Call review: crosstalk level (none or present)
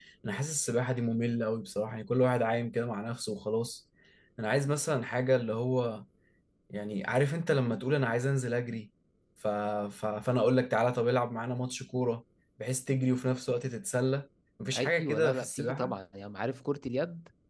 present